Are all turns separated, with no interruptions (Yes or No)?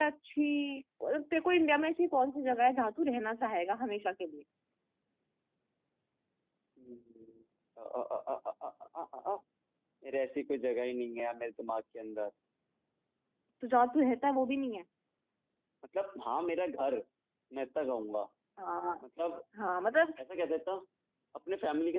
Yes